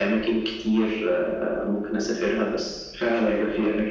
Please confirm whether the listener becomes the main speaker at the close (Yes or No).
Yes